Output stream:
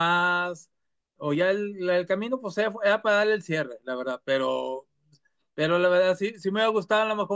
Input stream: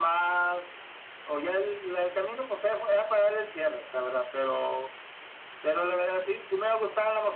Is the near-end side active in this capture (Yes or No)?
No